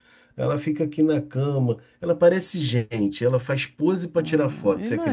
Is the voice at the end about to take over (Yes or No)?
Yes